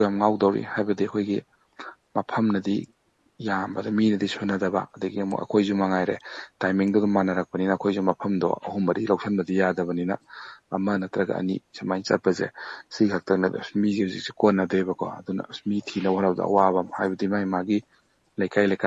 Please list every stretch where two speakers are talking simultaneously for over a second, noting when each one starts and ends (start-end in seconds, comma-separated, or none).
none